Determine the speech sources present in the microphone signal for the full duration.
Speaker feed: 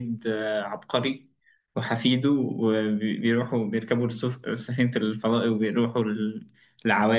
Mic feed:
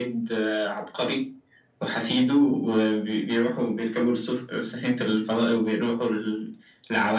echo only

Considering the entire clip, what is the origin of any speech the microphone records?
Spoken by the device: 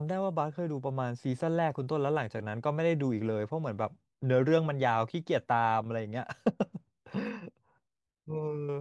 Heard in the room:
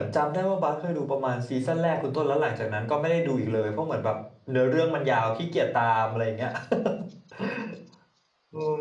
echo only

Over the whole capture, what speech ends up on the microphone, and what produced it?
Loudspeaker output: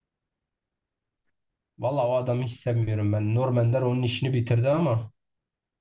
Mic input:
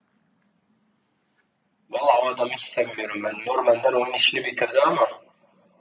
echo only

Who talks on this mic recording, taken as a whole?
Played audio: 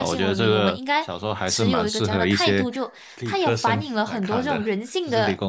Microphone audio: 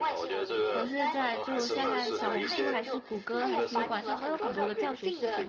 both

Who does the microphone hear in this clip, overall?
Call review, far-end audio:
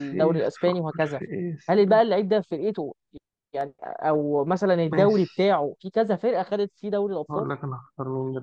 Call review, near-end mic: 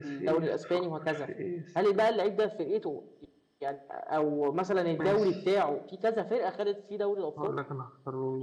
echo only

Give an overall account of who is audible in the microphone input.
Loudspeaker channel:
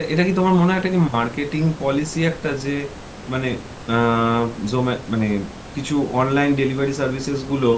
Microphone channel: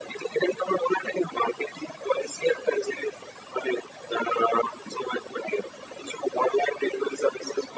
echo only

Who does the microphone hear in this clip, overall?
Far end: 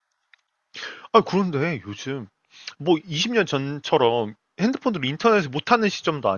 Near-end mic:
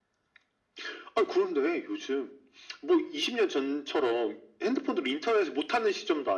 echo only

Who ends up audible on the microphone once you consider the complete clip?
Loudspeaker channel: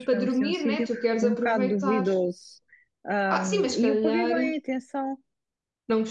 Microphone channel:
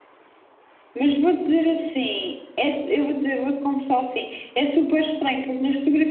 user only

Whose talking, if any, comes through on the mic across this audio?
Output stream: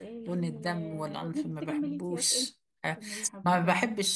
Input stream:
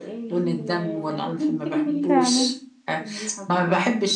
both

